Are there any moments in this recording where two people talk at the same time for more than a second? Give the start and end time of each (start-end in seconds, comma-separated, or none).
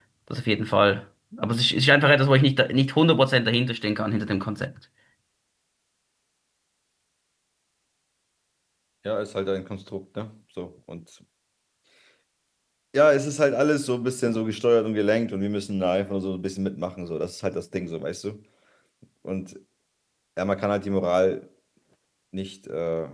none